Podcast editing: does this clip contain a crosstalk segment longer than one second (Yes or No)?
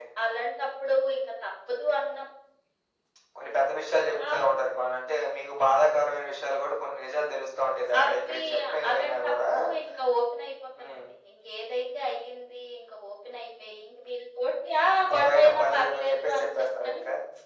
Yes